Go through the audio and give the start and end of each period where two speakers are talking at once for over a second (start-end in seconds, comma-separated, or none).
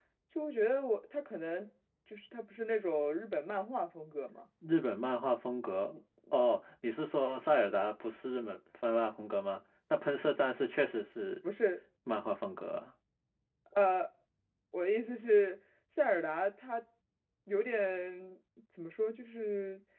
none